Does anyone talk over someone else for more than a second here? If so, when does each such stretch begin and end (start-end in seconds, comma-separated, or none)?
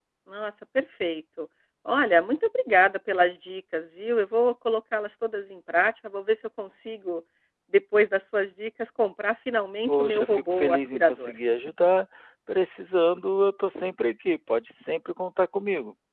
9.9-11.4